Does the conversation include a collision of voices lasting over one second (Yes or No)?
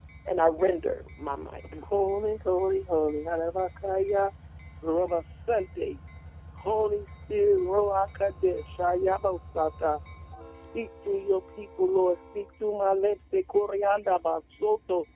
No